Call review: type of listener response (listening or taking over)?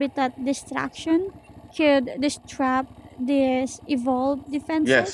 taking over